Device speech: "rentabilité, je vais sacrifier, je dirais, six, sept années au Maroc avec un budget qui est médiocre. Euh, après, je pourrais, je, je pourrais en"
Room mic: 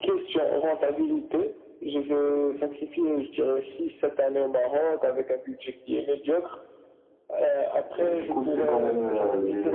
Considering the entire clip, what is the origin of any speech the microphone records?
both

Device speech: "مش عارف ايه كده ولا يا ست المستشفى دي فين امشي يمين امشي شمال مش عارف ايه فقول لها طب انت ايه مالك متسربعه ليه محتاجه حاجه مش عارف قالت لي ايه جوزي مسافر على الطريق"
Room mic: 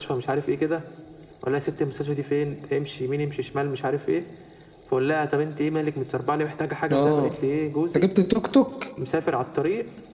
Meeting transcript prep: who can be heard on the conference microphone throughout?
both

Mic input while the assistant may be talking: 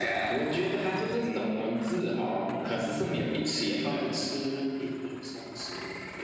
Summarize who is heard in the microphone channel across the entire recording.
echo only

